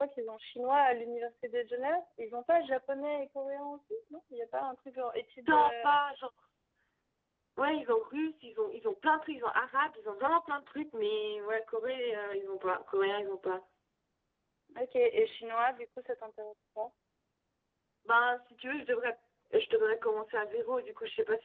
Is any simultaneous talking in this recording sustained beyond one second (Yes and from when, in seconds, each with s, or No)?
No